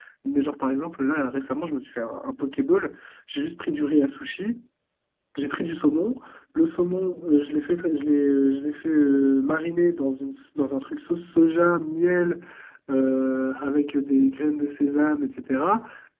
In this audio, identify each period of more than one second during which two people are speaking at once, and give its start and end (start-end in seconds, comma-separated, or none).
none